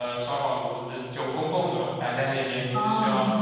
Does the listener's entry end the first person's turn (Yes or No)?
No